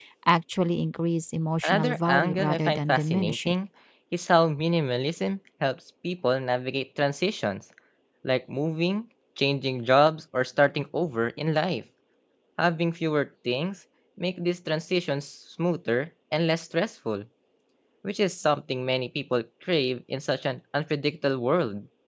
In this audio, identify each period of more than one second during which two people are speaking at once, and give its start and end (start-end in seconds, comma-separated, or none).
1.6-3.5